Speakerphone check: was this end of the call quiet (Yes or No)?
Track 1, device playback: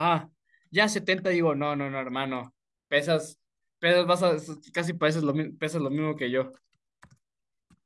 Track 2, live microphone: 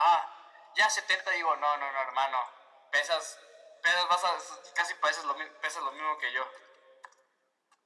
Yes